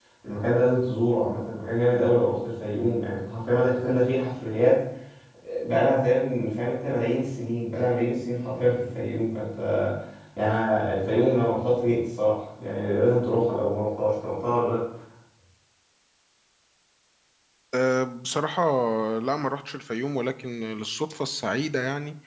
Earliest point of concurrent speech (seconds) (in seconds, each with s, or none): none